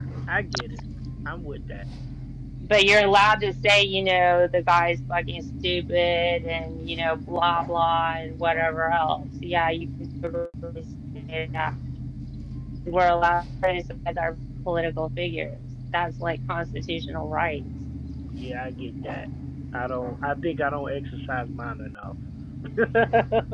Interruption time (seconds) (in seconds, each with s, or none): none